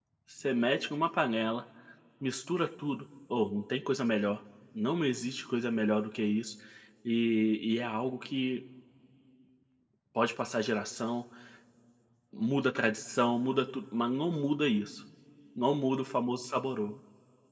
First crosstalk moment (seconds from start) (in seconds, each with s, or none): none